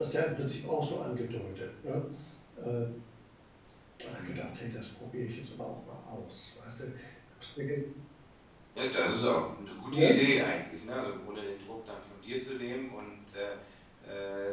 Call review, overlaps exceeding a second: none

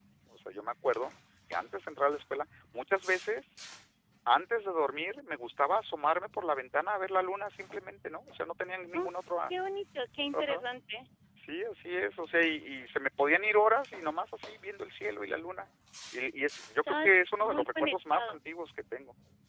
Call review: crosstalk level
present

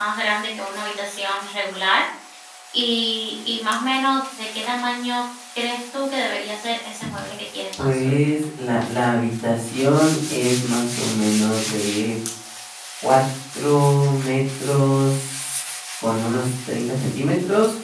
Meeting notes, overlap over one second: none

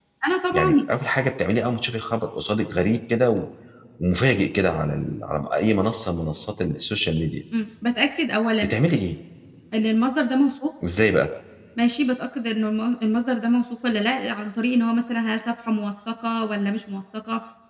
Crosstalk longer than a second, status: none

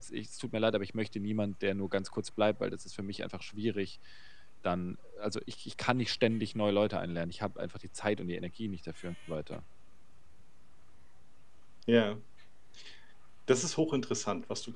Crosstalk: none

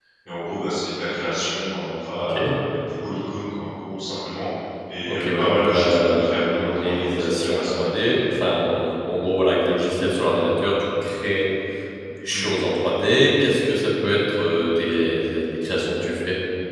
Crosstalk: present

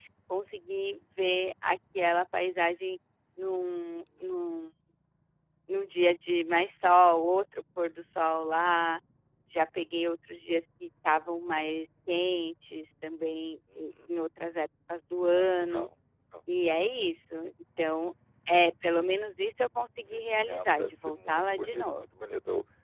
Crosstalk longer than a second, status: present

